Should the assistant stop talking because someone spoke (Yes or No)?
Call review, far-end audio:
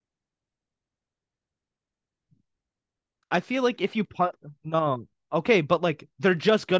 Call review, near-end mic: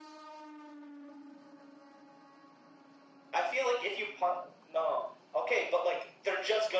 No